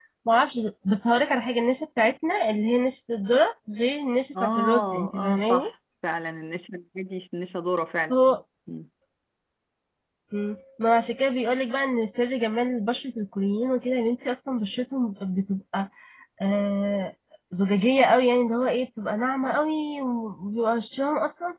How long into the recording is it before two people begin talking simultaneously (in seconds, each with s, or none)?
4.3 s